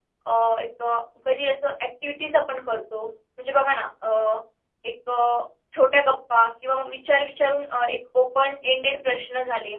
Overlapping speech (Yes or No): No